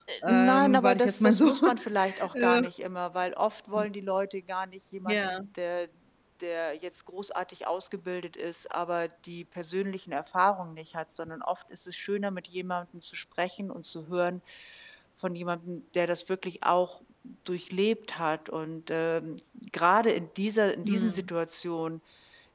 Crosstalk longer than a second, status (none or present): present